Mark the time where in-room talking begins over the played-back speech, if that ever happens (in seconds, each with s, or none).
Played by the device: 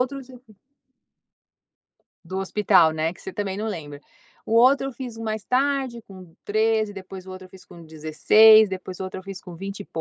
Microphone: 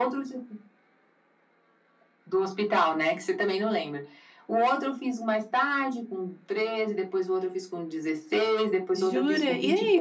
8.9 s